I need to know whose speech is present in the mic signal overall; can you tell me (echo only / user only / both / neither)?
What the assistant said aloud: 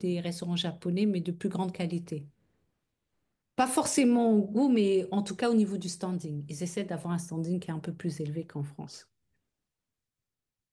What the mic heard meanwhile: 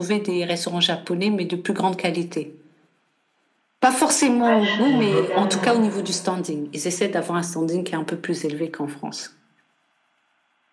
both